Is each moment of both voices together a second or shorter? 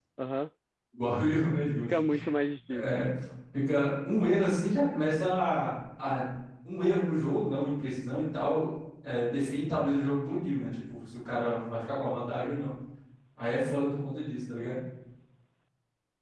Yes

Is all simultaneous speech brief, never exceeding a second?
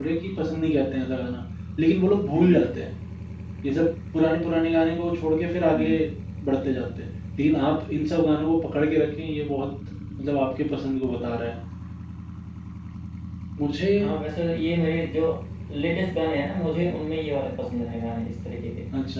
Yes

